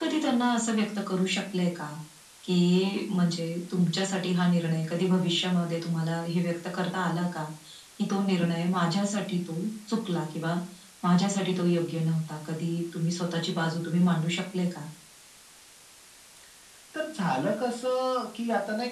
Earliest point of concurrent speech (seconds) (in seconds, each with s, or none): none